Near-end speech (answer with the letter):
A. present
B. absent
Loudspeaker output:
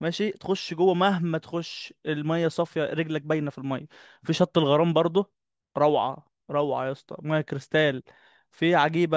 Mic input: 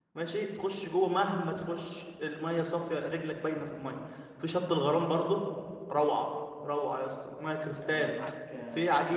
A